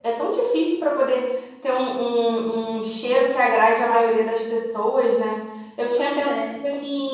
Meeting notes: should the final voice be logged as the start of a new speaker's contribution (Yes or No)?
No